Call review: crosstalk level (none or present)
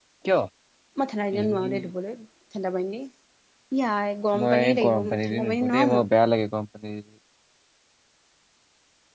present